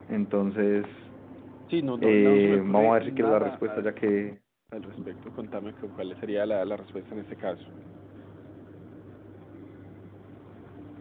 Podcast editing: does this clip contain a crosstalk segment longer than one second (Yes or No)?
Yes